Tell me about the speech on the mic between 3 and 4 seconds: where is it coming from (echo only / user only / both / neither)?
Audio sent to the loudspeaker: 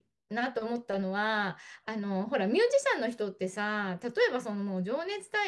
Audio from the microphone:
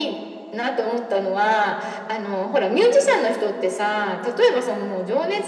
echo only